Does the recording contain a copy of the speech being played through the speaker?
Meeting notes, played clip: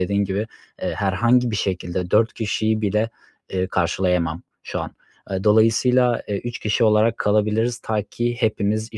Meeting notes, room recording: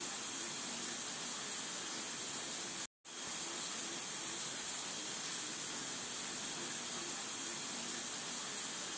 No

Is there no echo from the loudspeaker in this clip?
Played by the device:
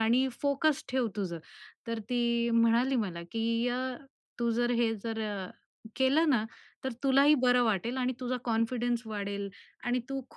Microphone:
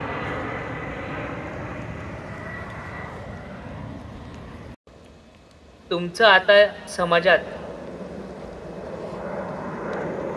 Yes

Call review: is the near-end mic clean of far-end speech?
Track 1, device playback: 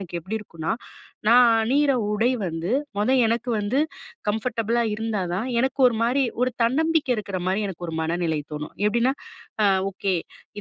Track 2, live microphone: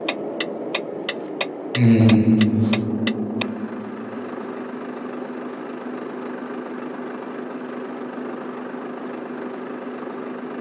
Yes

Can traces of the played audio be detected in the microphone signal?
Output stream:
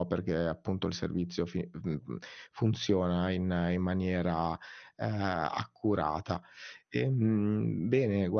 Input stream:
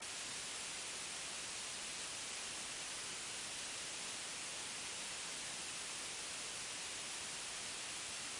No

